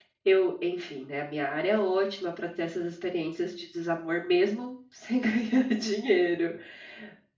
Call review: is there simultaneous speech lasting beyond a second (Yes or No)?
No